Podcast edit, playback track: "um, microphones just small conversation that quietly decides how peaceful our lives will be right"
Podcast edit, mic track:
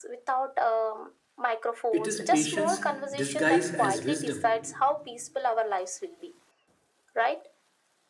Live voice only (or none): it is patience disguised as wisdom.